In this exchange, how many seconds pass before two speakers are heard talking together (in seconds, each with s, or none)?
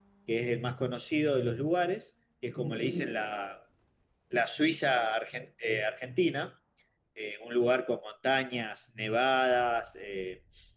none